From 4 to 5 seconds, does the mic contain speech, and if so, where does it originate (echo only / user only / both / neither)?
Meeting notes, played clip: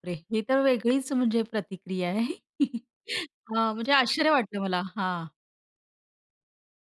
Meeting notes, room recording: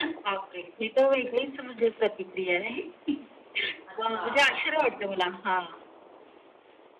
both